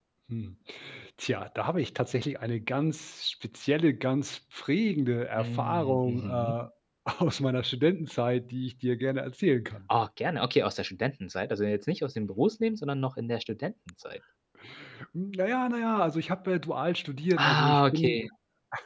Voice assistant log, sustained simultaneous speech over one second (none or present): present